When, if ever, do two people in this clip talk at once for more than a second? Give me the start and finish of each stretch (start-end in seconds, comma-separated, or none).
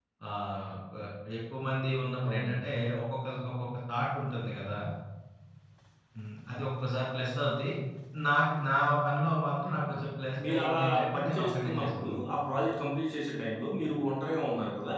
10.5-12.1